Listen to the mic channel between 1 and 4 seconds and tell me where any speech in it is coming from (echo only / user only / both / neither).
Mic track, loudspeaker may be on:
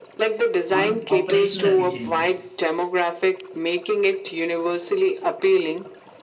both